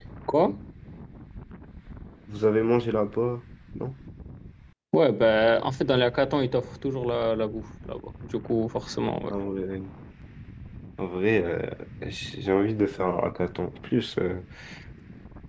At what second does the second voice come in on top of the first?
none

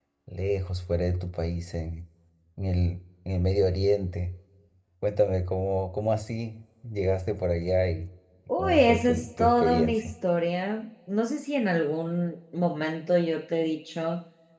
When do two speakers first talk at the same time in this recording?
8.6 s

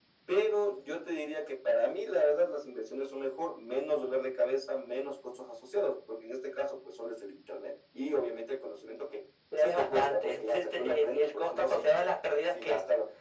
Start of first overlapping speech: 9.6 s

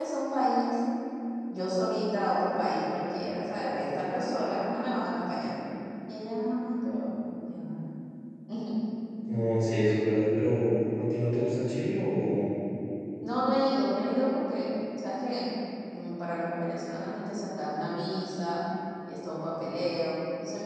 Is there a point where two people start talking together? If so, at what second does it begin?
none

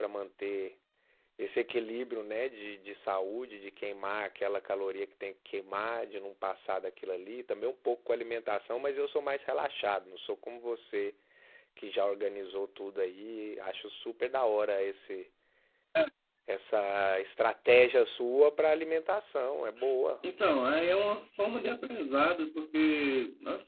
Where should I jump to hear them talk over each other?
none

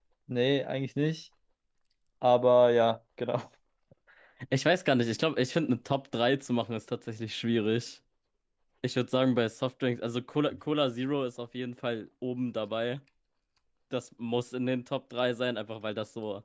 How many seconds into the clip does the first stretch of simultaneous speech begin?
none

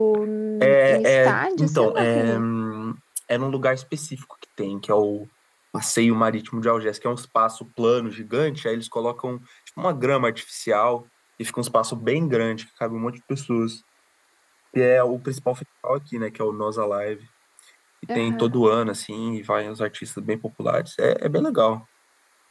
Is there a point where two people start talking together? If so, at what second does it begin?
0.6 s

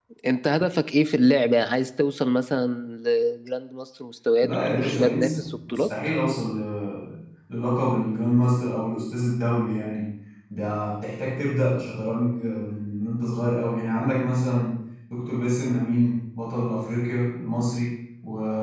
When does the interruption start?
4.4 s

